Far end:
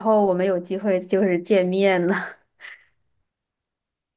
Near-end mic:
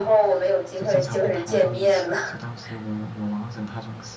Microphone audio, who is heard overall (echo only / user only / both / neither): both